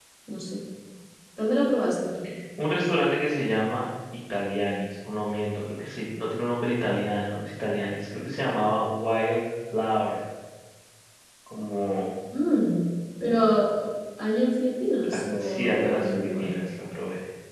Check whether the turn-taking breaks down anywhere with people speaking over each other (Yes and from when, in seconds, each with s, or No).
Yes, from 15.0 s